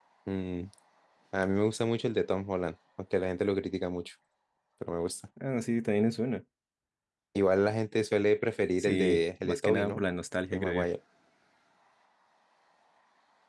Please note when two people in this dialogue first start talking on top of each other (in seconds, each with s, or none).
8.8 s